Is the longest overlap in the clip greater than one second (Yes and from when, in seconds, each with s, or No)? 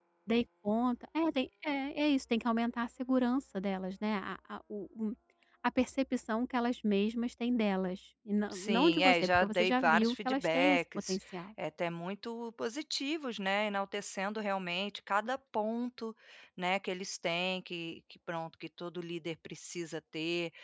Yes, from 8.5 s